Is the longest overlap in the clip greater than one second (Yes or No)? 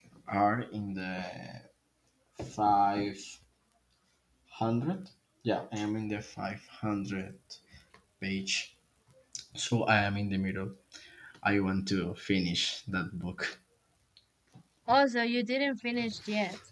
No